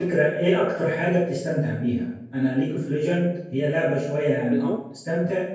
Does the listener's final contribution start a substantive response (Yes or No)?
No